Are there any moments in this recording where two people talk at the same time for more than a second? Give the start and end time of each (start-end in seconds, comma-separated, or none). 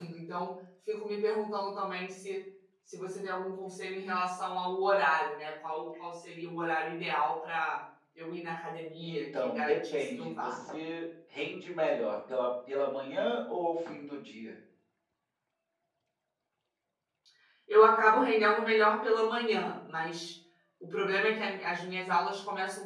9.0-10.6